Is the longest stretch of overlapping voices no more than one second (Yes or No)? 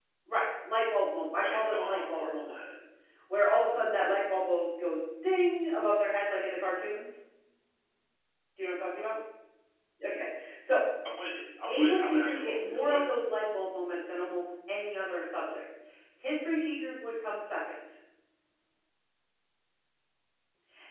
No